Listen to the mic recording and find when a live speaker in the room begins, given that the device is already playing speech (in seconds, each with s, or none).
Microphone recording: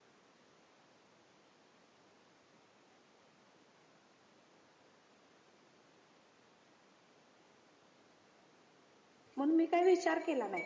9.4 s